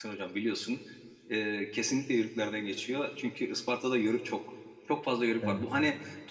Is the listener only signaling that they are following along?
Yes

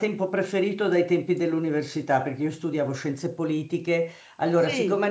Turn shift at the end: No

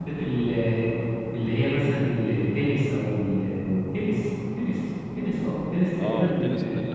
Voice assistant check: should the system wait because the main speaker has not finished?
No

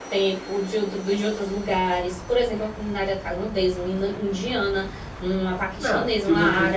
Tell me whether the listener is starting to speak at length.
Yes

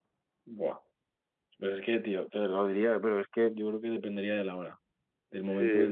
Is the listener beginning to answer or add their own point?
No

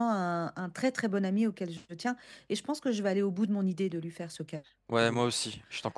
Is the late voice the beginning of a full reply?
Yes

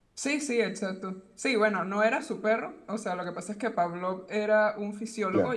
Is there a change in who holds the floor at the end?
No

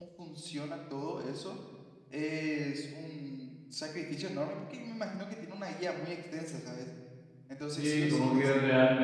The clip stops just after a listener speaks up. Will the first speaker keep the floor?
No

